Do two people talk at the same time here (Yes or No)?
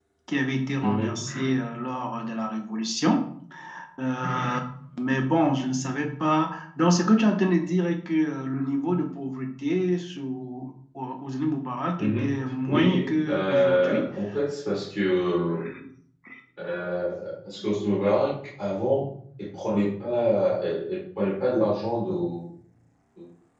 Yes